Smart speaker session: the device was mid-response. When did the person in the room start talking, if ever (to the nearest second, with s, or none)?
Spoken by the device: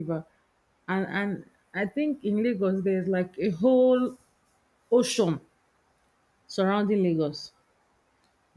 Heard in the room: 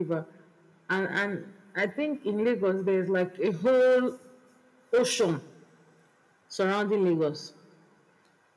none